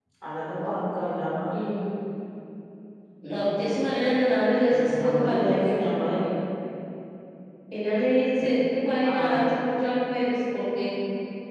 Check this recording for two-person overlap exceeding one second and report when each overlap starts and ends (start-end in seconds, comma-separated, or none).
4.7-6.1